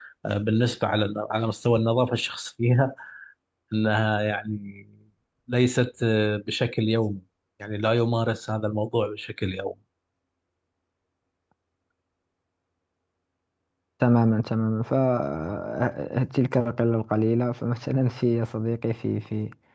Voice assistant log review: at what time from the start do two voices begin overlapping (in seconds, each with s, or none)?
none